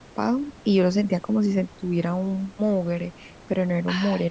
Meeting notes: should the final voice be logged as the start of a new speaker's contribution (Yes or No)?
No